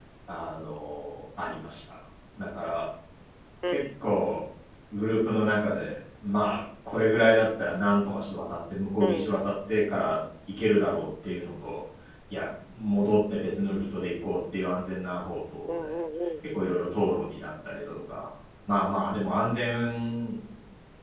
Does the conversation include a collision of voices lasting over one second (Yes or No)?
No